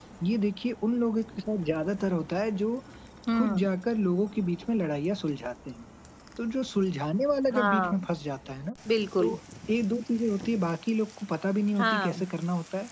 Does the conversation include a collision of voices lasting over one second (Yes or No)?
No